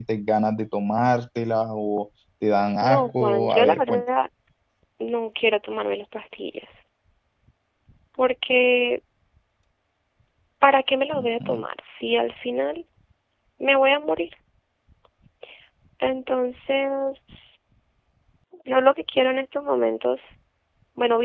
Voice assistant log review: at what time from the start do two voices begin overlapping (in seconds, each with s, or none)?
2.8 s